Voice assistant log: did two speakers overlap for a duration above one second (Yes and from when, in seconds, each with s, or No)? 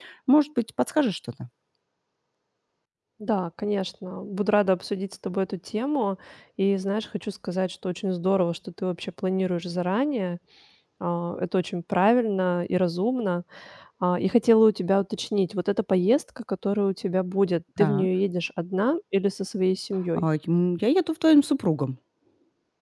No